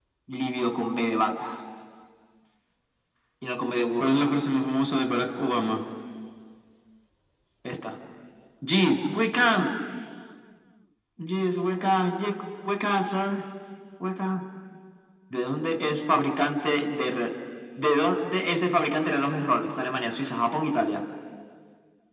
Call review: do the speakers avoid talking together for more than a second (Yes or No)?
Yes